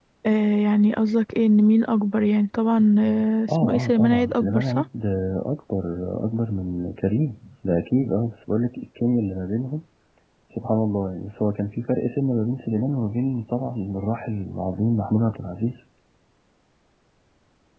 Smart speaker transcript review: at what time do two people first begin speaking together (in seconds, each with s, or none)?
3.5 s